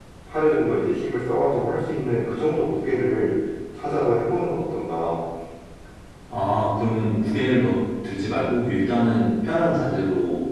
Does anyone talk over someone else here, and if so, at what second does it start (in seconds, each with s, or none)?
none